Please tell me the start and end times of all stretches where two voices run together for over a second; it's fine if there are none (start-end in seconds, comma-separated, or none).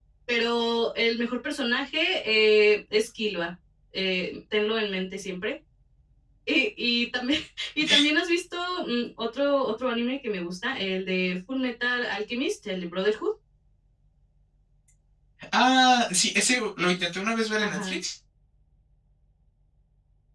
none